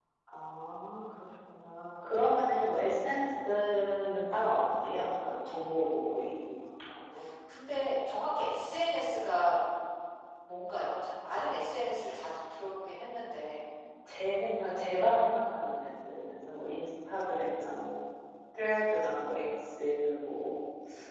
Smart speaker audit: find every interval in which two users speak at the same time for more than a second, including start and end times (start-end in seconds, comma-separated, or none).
none